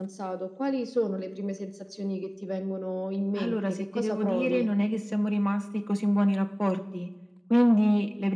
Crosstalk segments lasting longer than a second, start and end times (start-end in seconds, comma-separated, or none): 3.4-4.7